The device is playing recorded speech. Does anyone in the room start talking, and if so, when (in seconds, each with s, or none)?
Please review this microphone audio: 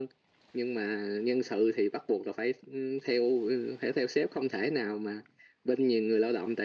none